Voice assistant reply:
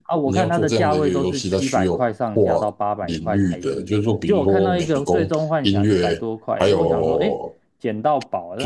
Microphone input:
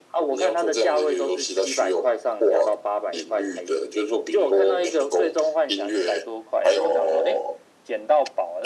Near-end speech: none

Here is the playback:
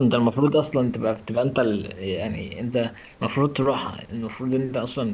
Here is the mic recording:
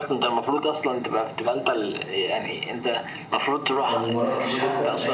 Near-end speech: present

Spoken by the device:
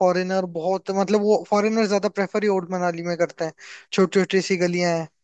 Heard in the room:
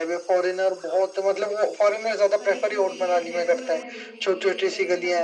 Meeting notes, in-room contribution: present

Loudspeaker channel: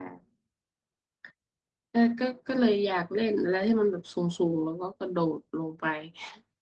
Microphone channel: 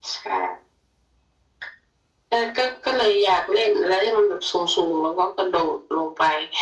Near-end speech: none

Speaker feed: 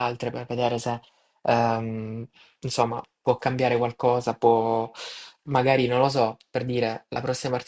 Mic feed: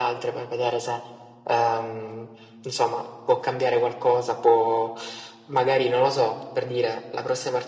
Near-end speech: none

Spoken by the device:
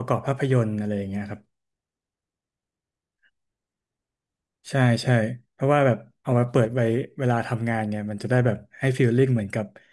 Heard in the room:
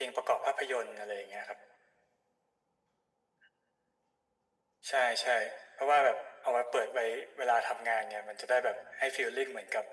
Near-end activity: none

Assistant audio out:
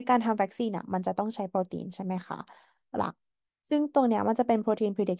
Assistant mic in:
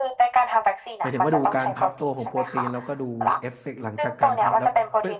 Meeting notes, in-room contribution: present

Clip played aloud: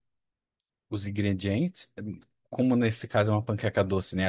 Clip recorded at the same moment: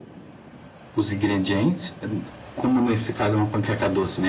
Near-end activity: none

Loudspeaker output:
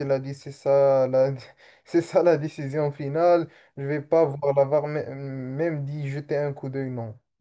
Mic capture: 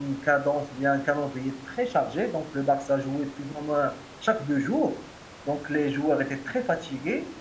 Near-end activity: present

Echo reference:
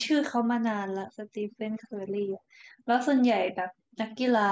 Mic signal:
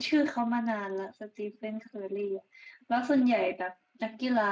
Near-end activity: none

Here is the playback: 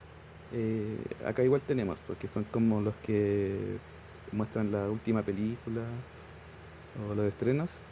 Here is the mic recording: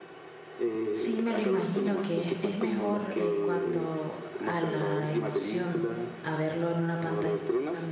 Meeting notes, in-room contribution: present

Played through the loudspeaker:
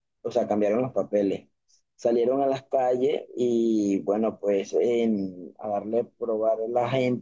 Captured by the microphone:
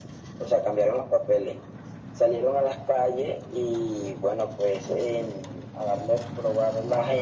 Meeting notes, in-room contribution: none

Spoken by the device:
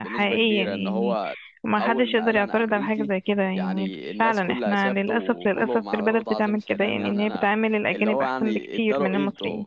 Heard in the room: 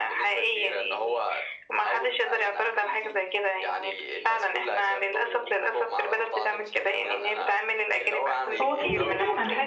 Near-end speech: present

